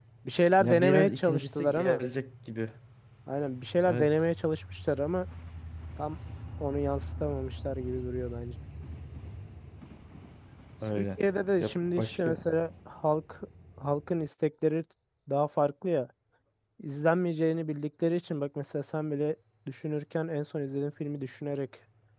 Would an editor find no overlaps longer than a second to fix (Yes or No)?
No